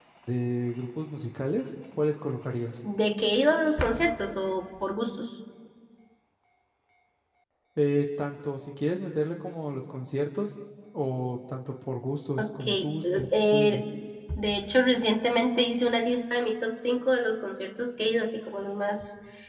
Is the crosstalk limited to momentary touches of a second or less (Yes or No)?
No